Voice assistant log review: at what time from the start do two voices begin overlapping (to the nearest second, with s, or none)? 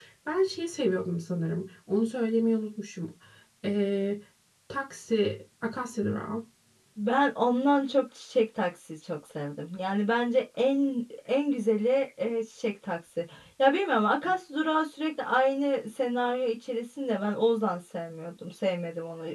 none